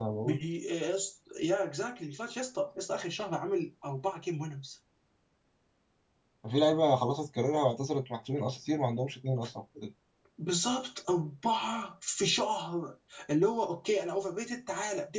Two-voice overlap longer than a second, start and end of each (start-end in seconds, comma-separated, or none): none